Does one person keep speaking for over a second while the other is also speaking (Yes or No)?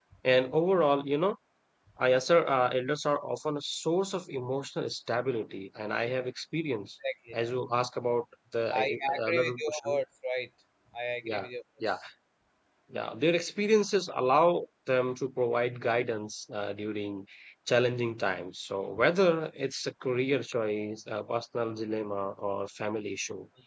Yes